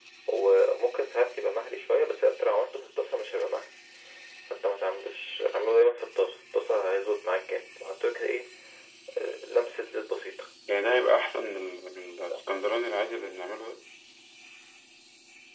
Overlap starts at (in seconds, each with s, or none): none